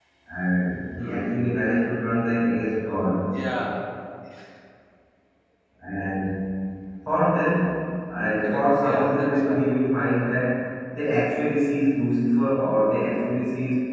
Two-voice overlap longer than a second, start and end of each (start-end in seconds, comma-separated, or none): 8.4-9.7